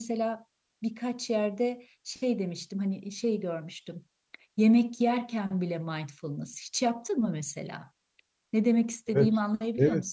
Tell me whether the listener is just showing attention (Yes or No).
No